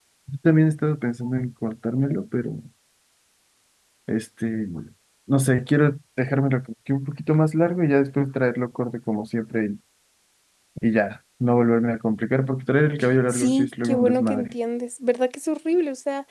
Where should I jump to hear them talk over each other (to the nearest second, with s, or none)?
13 s